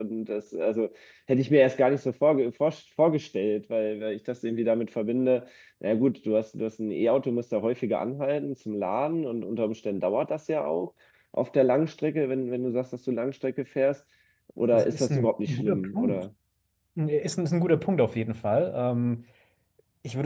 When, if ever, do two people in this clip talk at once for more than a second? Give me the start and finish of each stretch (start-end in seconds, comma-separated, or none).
14.7-16.2